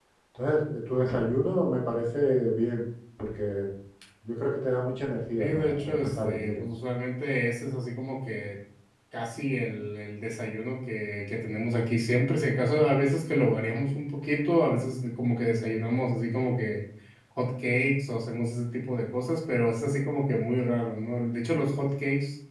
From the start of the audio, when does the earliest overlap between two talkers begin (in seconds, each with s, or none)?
5.4 s